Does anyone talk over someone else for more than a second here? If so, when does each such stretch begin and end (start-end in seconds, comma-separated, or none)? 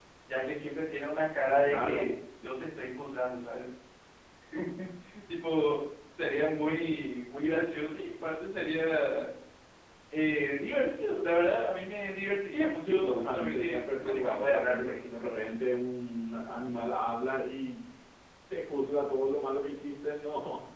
12.8-15.5